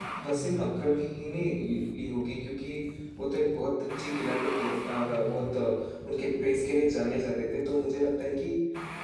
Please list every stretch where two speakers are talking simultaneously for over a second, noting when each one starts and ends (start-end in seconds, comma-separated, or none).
none